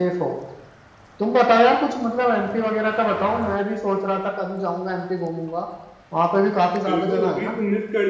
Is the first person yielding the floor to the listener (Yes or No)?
Yes